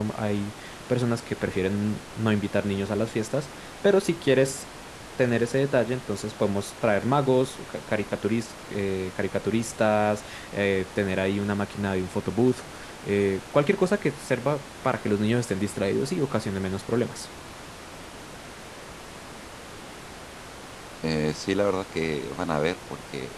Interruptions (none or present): none